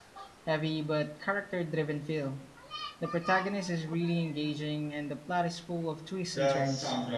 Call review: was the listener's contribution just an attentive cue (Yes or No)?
No